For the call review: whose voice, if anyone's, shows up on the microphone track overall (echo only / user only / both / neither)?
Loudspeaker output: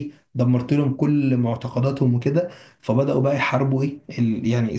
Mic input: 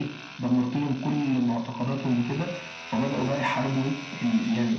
echo only